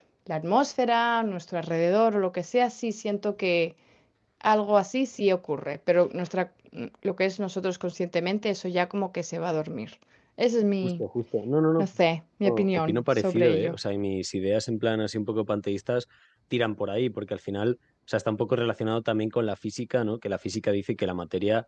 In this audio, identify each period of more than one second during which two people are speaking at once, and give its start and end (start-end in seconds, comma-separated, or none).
12.4-13.8